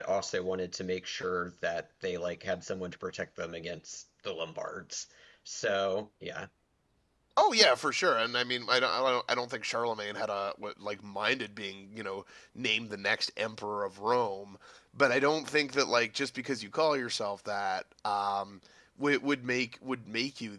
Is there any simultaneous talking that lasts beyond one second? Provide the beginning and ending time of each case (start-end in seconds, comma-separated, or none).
none